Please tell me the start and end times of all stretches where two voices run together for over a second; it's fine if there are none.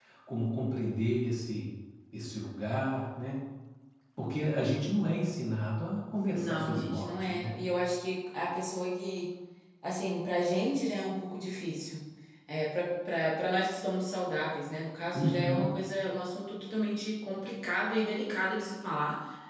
6.3-7.6

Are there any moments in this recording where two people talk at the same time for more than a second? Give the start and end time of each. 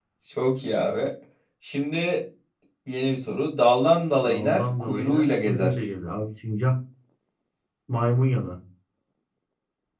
4.3-5.7

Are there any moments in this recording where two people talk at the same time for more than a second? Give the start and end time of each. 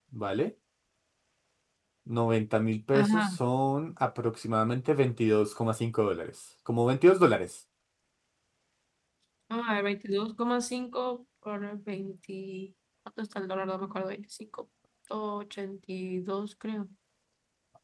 none

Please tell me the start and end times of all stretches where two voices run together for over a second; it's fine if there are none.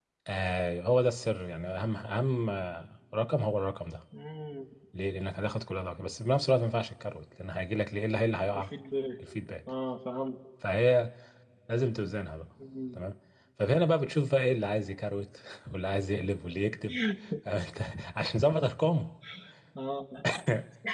none

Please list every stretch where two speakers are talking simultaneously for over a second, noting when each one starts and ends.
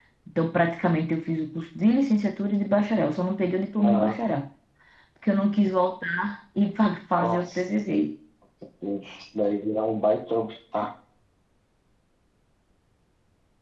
none

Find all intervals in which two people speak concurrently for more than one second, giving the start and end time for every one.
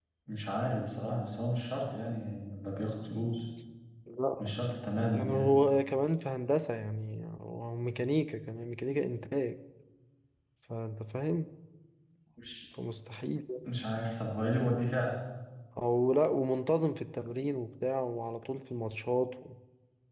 none

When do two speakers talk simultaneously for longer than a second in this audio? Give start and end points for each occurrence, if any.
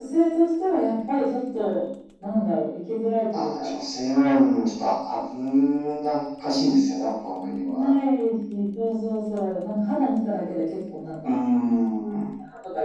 none

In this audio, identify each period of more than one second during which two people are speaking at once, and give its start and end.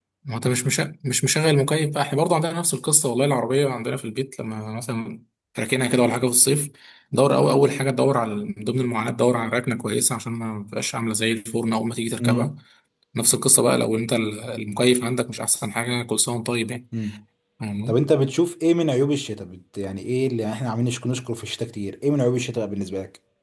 none

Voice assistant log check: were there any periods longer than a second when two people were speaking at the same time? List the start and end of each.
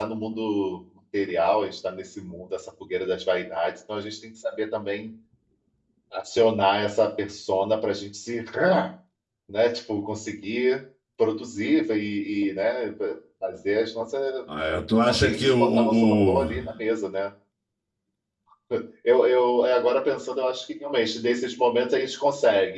15.1-16.7

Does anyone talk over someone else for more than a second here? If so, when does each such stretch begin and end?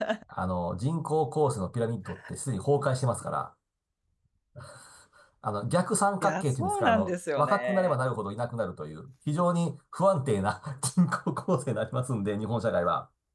6.2-8.0

